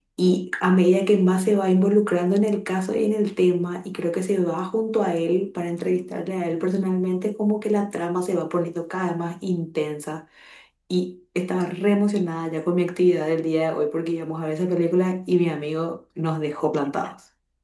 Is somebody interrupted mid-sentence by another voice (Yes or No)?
No